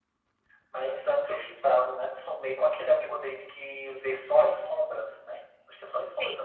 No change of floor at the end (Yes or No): No